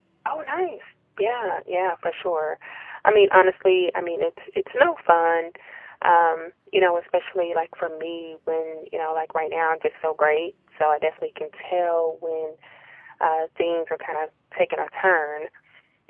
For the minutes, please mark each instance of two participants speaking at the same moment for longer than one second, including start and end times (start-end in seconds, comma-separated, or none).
none